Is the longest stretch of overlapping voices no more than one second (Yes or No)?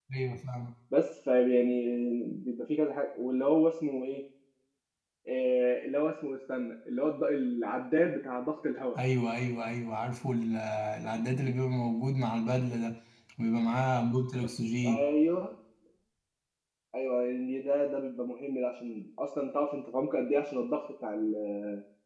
Yes